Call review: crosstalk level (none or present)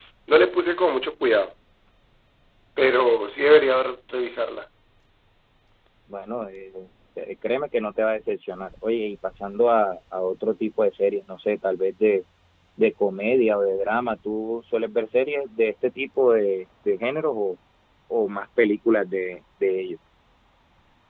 none